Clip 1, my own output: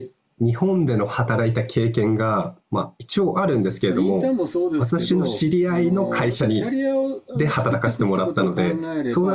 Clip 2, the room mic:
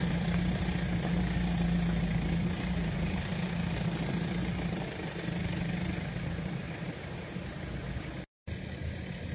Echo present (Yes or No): No